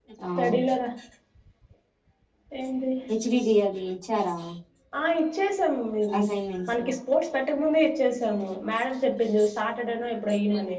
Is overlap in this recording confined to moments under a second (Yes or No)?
Yes